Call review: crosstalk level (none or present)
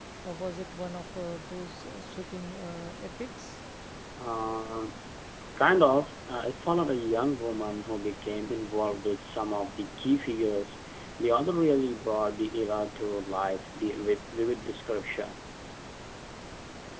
none